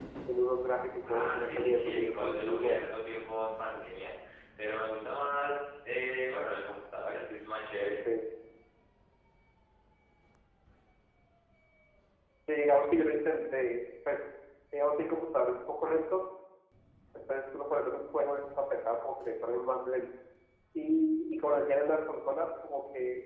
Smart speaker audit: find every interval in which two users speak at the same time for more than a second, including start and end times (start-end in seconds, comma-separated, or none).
1.1-2.8